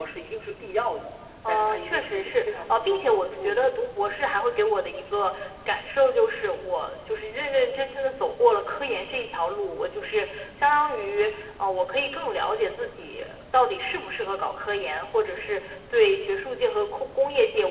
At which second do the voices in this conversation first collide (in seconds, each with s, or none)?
1.4 s